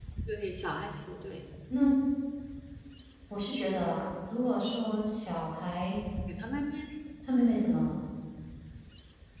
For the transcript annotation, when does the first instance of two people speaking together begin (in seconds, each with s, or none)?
none